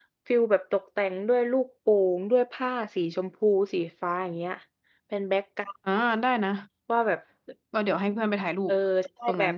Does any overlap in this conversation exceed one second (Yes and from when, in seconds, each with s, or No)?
No